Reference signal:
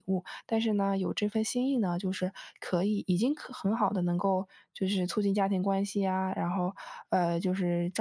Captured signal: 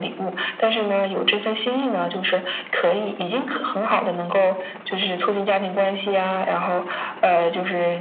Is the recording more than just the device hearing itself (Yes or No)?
No